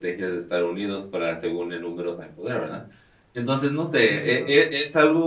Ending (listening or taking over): listening